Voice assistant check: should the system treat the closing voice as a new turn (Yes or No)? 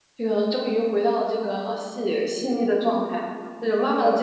No